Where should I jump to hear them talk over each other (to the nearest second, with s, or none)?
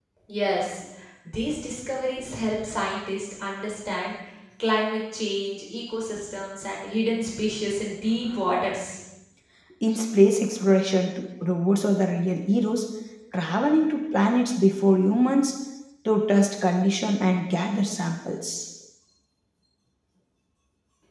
none